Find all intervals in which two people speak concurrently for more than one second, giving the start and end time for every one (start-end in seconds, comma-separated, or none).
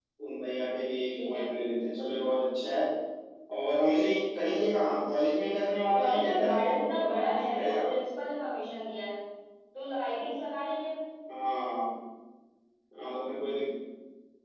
5.9-7.9